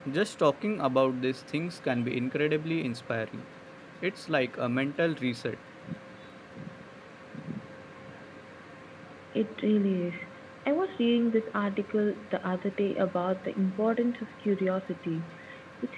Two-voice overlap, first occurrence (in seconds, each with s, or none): none